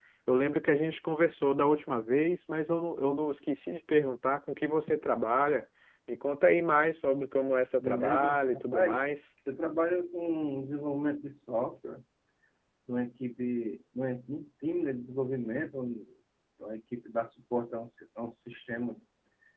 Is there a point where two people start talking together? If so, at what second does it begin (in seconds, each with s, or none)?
7.8 s